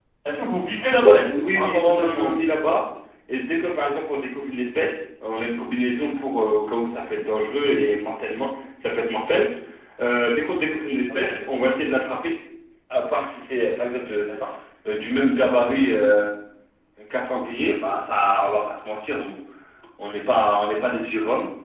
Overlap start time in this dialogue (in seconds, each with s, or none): 1.0 s